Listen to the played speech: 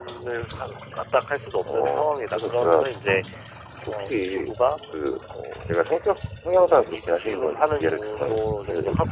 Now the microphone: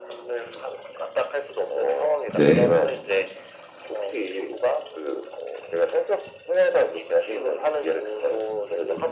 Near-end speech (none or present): present